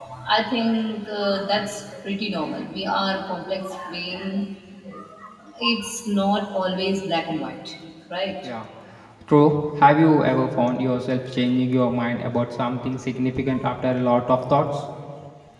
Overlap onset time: none

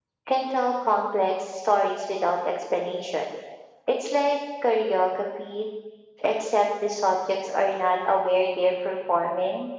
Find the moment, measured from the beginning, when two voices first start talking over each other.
none

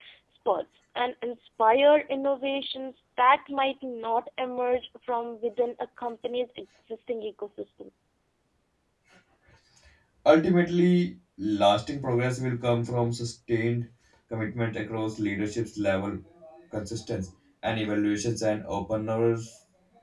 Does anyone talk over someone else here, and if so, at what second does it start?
none

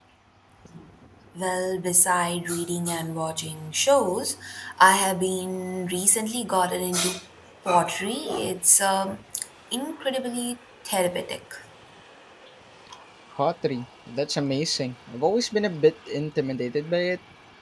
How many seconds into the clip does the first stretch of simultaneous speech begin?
none

